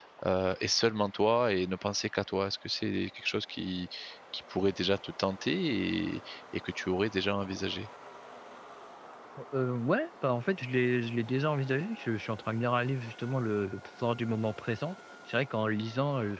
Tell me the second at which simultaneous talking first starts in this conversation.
none

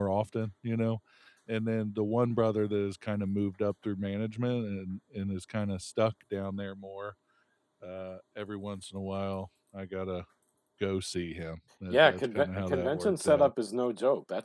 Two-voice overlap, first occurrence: 11.9 s

